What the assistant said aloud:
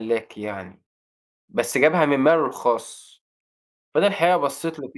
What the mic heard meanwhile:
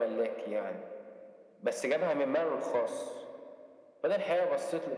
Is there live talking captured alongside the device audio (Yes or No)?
No